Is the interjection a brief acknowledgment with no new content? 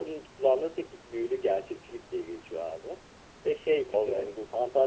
Yes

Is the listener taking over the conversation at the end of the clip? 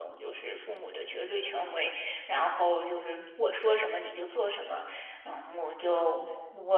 No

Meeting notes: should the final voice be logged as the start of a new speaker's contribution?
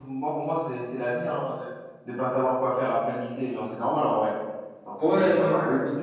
Yes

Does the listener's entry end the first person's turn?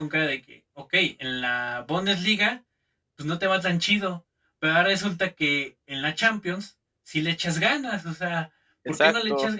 No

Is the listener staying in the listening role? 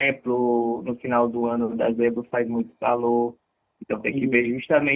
Yes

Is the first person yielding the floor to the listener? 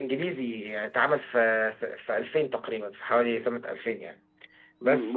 Yes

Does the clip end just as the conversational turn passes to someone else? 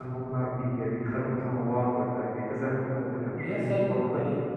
Yes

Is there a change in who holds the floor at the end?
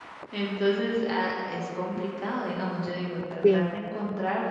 No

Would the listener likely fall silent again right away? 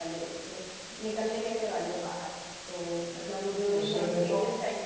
Yes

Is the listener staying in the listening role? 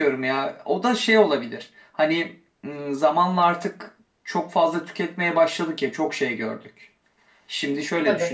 Yes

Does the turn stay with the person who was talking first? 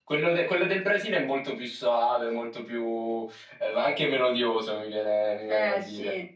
No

